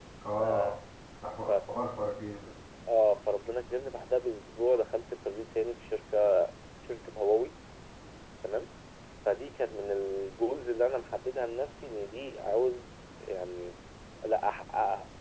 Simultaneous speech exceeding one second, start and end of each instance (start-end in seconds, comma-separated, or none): none